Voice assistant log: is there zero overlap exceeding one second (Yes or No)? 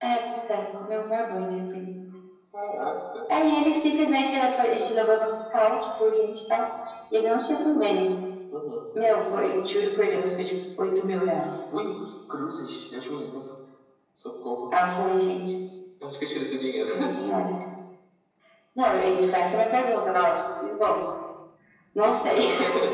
Yes